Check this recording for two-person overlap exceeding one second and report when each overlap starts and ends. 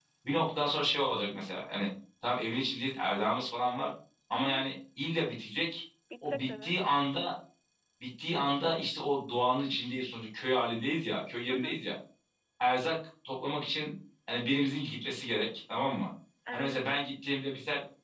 none

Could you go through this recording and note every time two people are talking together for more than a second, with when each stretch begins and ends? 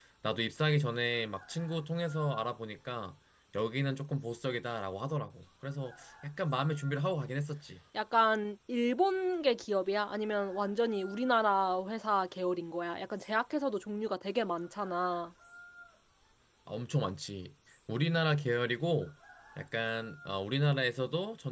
none

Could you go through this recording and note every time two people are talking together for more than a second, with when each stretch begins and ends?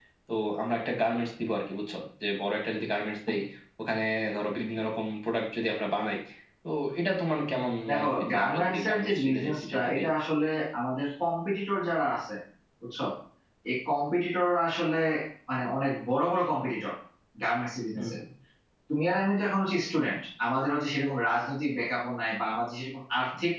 7.9-10.1

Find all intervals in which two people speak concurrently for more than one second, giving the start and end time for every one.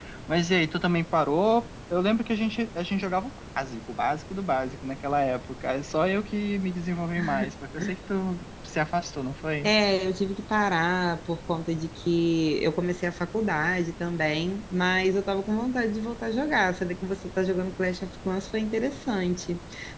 none

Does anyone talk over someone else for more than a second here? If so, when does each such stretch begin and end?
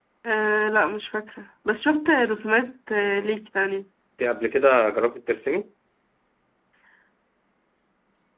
none

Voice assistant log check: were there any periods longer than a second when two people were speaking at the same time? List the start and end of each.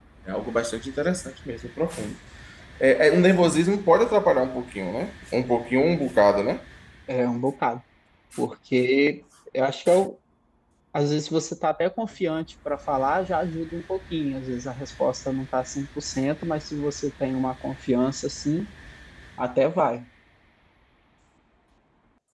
none

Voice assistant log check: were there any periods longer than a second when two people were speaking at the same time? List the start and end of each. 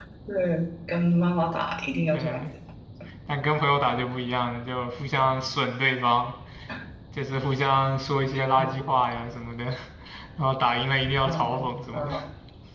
none

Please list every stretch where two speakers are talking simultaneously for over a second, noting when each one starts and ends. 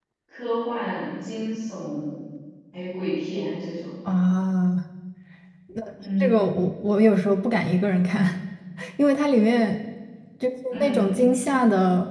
none

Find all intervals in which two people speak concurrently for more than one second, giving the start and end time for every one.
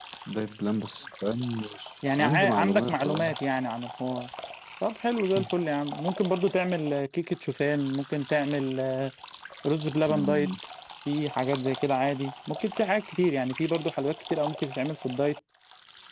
2.1-3.4

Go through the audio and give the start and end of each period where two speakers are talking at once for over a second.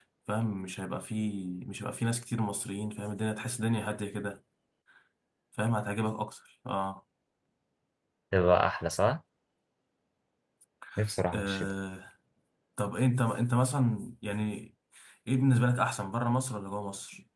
none

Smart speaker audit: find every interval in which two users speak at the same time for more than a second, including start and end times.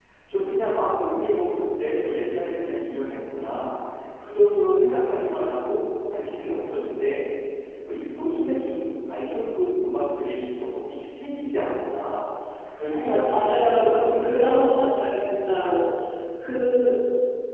12.9-14.7

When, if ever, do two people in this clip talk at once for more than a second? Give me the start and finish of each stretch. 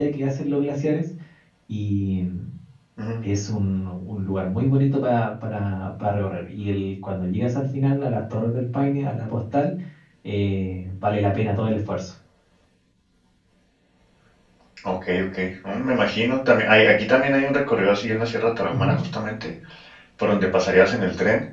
none

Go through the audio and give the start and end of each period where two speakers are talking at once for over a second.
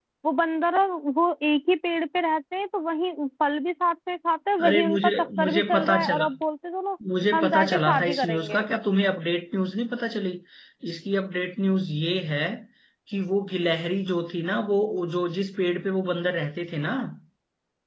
4.7-6.2, 7.3-8.6

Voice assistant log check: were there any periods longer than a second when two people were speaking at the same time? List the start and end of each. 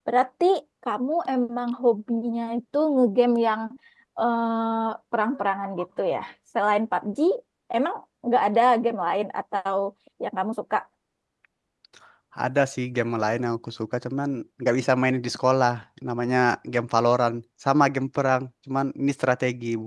none

